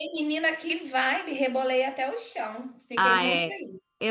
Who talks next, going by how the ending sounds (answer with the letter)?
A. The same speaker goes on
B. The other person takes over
B